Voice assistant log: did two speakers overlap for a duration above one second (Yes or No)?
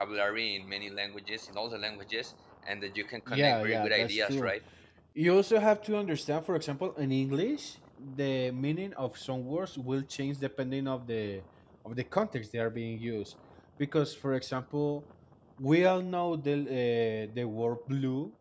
Yes